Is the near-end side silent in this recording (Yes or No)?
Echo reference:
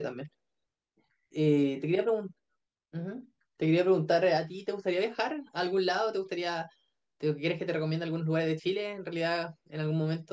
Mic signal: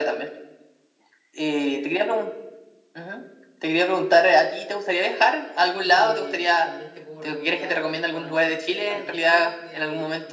No